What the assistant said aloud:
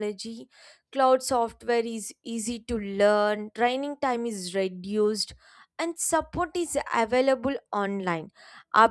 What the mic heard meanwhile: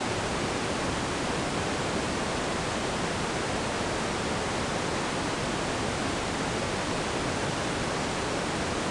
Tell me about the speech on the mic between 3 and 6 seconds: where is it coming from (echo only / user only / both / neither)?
neither